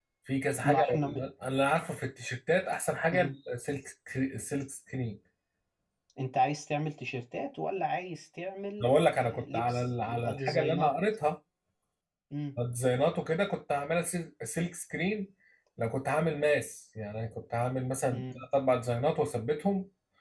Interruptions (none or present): present